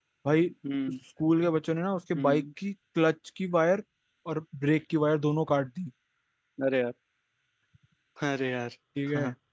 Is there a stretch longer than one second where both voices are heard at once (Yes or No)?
No